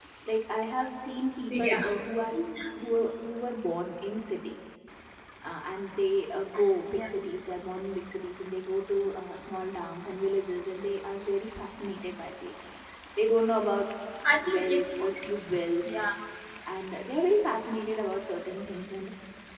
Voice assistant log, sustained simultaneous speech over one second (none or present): none